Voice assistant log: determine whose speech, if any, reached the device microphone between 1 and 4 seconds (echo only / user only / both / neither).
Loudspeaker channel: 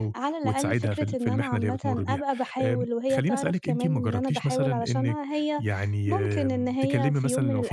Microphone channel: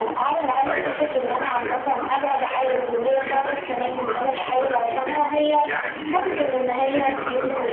echo only